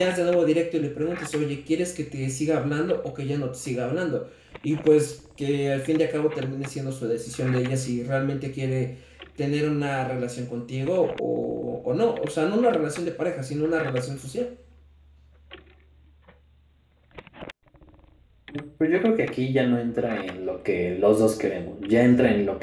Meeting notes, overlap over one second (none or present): none